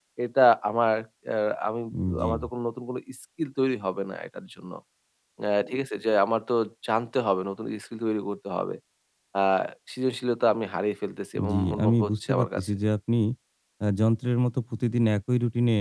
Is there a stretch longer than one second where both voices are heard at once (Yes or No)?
Yes